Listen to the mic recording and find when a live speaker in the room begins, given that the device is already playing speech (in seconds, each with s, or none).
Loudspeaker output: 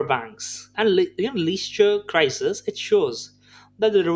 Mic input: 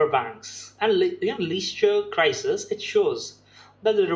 none